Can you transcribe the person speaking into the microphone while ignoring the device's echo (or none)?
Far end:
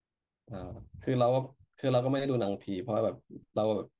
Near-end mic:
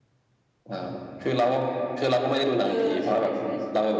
เออใช่ใช่ใช่